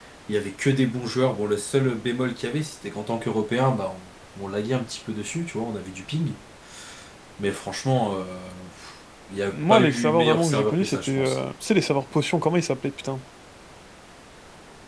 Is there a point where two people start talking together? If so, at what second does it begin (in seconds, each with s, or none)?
9.5 s